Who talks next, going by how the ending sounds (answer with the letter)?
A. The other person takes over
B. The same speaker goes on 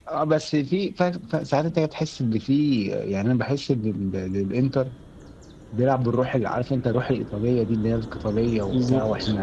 B